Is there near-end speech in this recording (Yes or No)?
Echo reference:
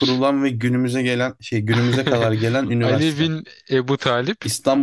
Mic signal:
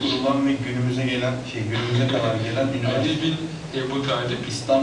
No